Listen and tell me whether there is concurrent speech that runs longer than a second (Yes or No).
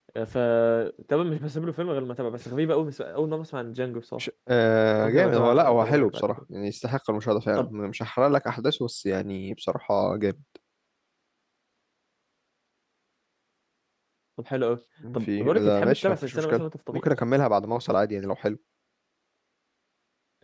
Yes